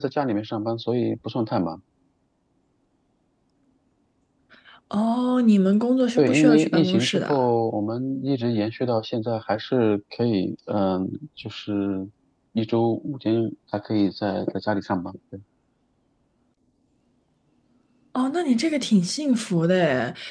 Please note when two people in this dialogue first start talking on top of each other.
6.2 s

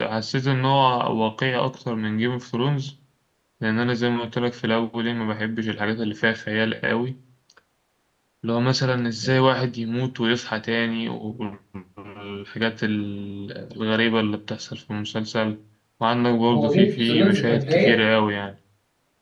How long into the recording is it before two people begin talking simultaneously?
16.5 s

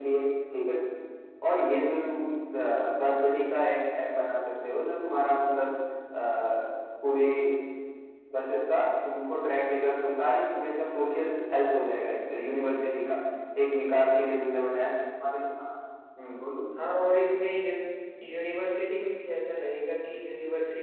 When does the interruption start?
none

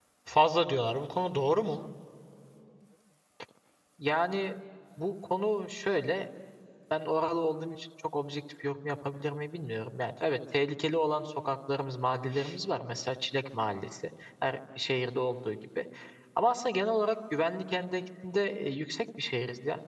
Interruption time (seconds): none

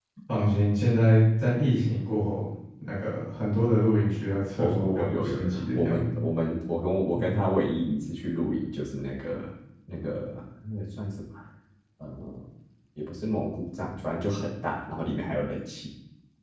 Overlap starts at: 4.6 s

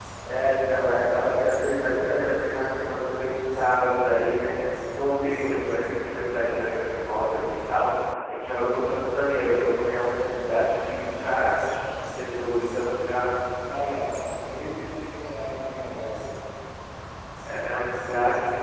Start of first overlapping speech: none

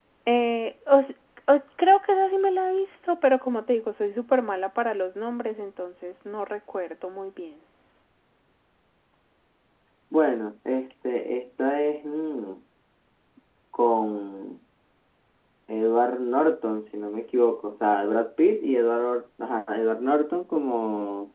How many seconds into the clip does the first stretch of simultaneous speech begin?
none

